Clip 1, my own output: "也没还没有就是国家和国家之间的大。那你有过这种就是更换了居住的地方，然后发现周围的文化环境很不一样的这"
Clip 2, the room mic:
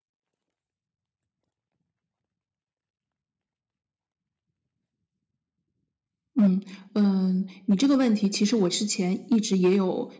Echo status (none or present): none